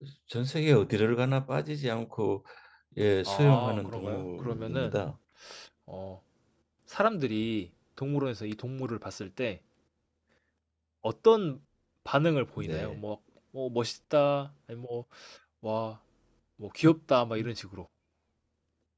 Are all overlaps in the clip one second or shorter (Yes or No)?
No